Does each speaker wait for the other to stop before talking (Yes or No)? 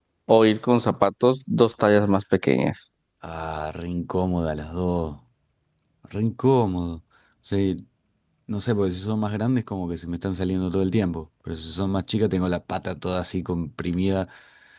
Yes